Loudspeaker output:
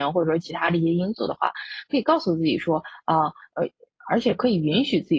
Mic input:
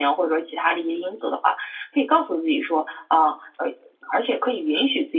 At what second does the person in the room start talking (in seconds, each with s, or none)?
none